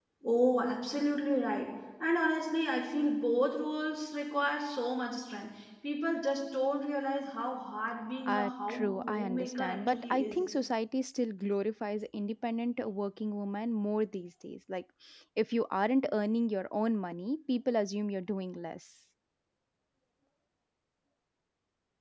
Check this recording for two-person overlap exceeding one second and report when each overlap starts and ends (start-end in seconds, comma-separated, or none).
8.3-10.4